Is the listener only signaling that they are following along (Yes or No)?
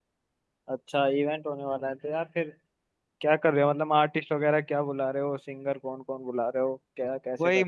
No